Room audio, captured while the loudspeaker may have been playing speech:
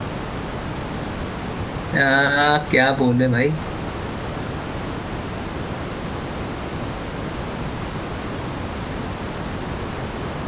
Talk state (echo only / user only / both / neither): user only